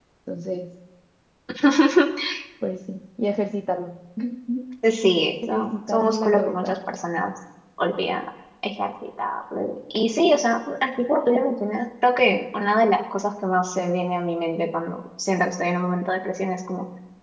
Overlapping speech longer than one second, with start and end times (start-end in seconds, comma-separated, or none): 5.5-6.8